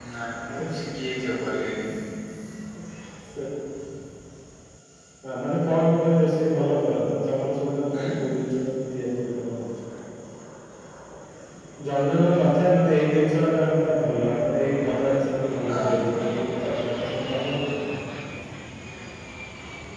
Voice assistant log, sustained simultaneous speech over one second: none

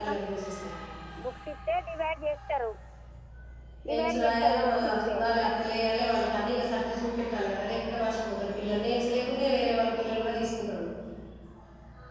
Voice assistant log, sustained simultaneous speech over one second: present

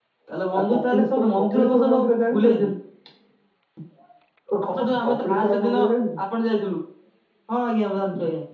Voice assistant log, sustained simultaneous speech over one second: present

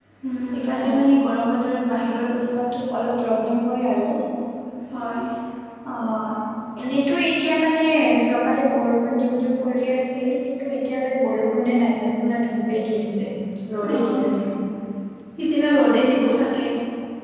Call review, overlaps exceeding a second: none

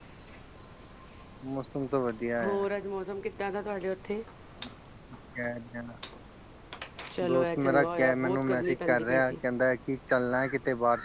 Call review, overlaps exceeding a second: present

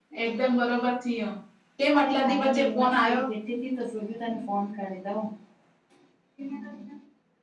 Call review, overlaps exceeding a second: present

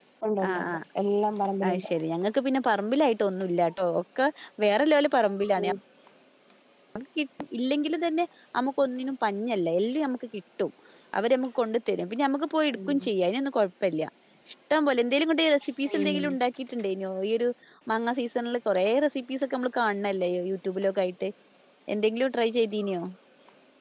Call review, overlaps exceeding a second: none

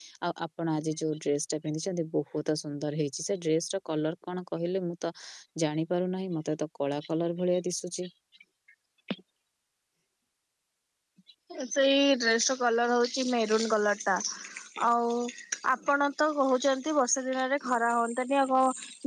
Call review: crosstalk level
none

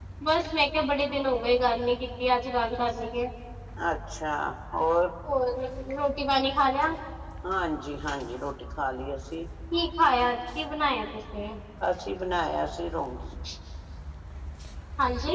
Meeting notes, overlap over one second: none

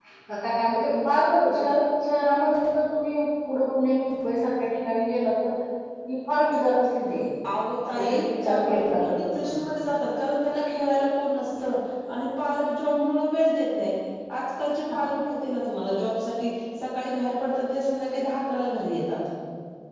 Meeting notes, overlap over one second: present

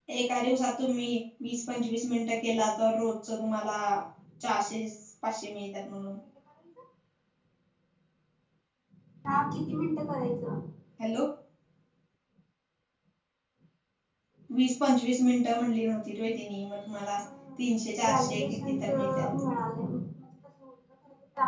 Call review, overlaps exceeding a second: present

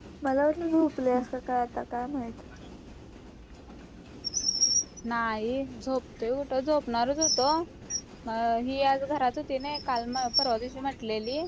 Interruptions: none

